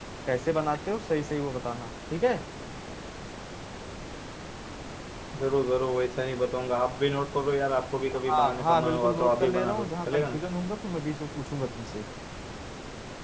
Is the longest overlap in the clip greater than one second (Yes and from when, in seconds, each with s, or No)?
Yes, from 8.1 s